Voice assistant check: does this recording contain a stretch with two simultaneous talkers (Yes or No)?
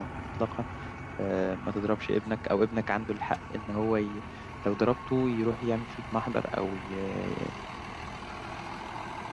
No